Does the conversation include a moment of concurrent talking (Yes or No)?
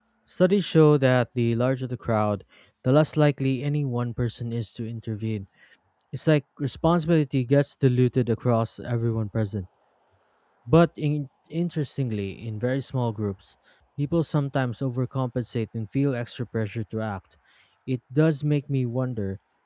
No